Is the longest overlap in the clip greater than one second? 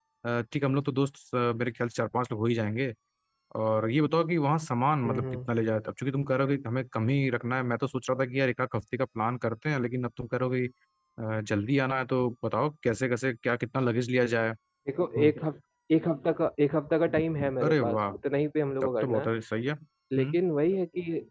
No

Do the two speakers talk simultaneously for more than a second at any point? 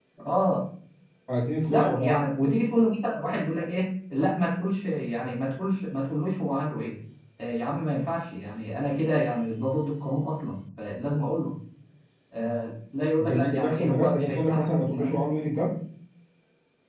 Yes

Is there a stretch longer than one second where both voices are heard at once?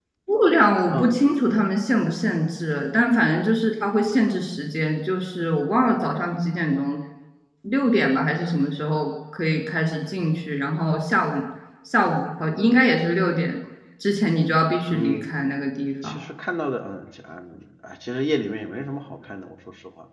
No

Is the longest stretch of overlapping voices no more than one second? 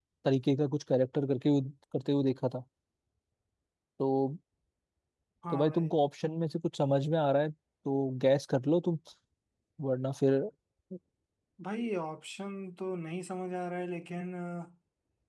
Yes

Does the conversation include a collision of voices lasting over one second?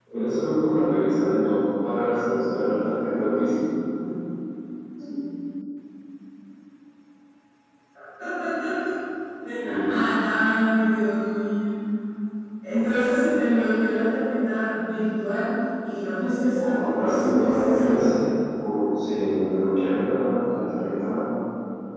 Yes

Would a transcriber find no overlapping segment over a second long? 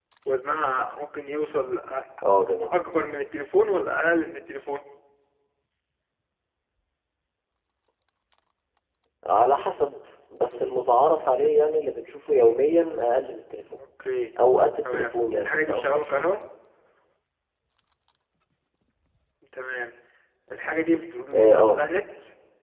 No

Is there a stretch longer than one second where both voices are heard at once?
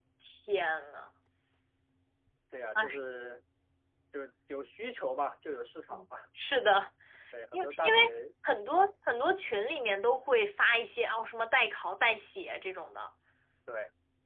No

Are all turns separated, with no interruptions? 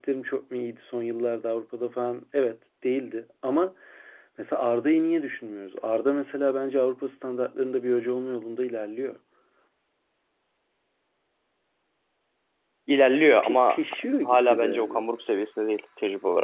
No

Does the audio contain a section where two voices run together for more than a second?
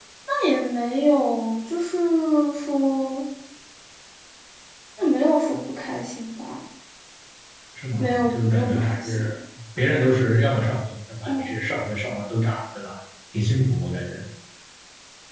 Yes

